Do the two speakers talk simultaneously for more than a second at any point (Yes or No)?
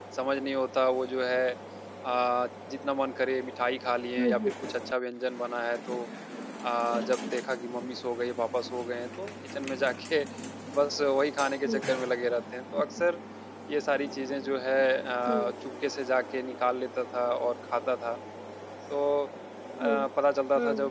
No